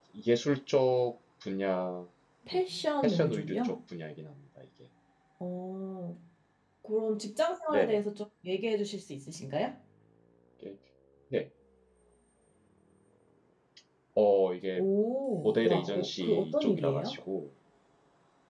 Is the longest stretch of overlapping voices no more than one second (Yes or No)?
No